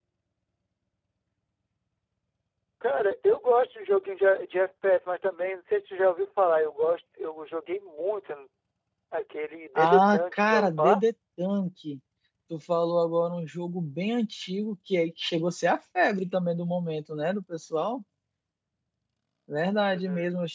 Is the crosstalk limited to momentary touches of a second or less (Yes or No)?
No